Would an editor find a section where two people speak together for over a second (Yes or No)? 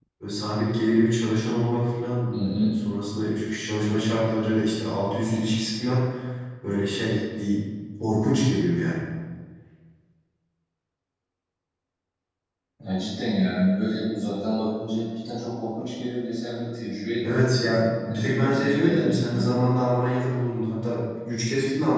Yes